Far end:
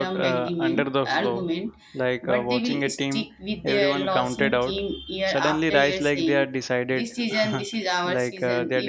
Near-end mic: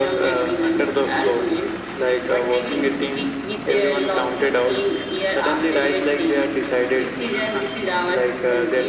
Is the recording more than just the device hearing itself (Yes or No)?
No